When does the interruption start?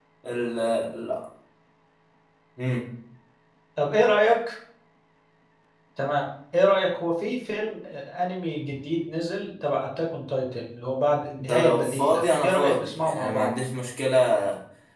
11.4 s

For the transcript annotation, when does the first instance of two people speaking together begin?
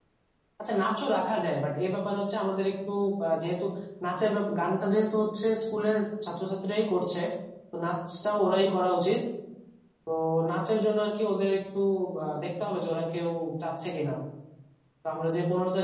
none

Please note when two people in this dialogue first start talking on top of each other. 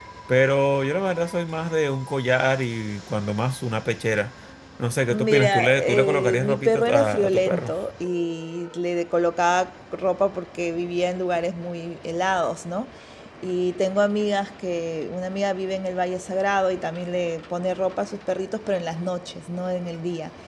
5.1 s

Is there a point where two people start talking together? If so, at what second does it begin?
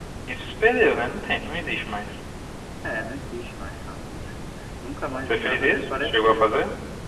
5.3 s

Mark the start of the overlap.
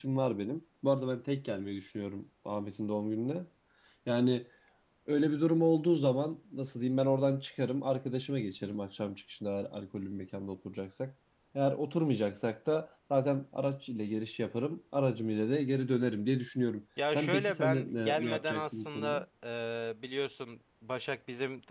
17.0 s

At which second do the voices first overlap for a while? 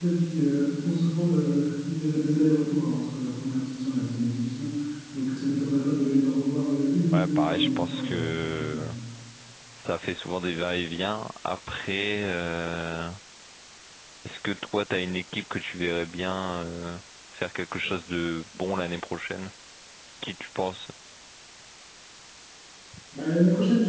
7.1 s

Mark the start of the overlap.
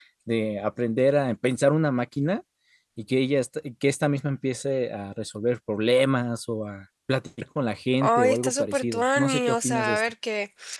8.0 s

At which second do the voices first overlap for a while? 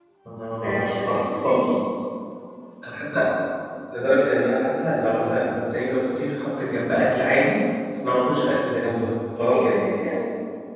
0.5 s

